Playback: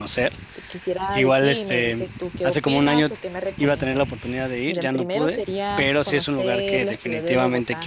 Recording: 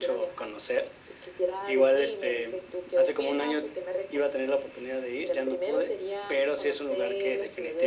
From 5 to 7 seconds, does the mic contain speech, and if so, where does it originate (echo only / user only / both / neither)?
echo only